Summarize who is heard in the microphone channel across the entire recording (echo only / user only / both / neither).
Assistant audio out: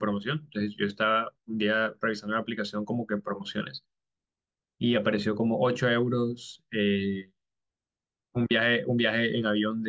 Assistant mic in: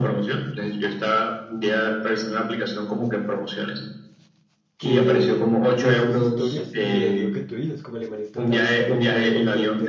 both